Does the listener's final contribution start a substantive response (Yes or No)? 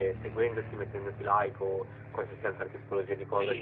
Yes